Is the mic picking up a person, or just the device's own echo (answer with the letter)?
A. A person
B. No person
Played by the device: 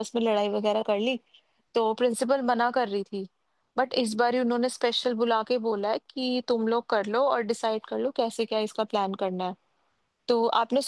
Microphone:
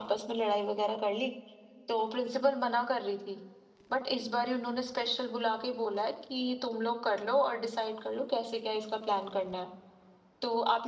B